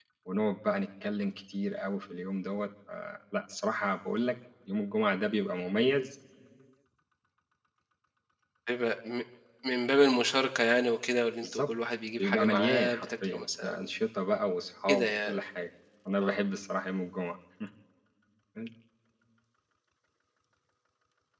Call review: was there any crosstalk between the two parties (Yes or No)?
Yes